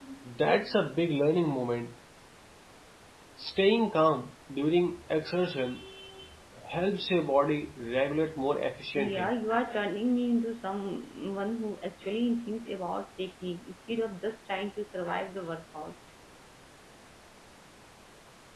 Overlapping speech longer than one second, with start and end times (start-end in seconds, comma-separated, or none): none